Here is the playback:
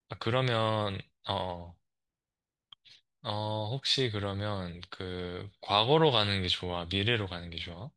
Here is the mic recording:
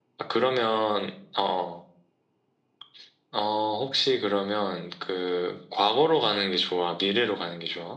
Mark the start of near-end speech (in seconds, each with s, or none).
none